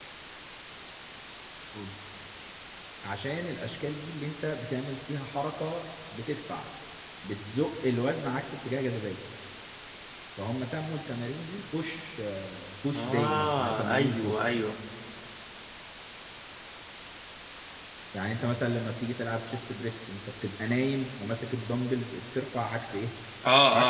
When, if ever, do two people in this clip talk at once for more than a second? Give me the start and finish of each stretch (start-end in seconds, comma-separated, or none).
12.9-14.4